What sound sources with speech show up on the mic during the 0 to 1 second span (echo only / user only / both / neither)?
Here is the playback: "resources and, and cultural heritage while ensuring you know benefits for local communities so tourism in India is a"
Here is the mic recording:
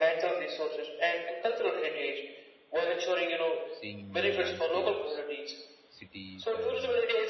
echo only